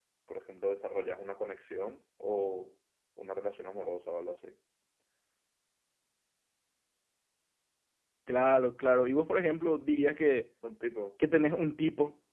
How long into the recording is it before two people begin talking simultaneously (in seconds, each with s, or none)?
none